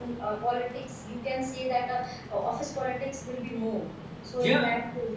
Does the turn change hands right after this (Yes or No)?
No